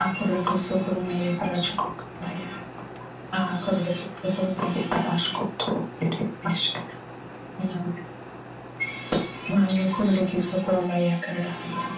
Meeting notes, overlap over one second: none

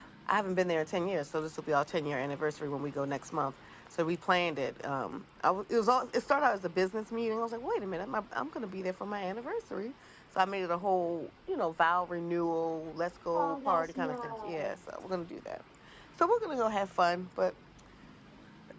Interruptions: present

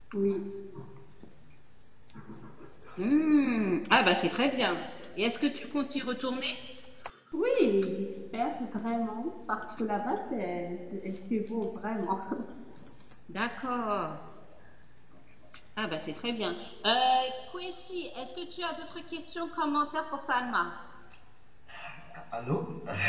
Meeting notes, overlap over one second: none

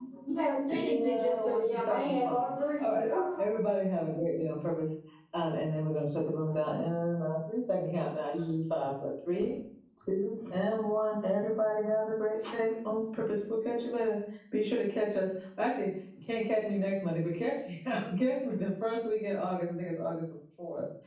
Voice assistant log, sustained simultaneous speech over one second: present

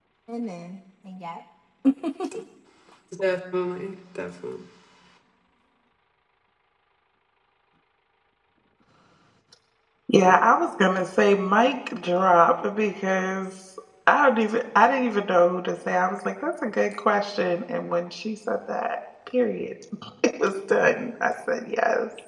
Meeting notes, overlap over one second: none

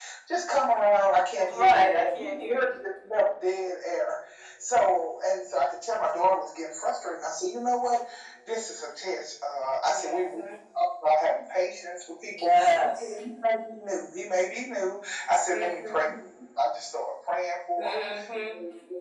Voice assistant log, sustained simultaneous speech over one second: present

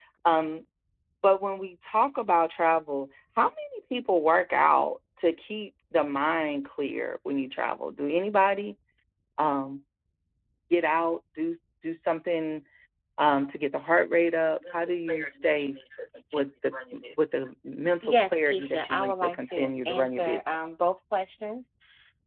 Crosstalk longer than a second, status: present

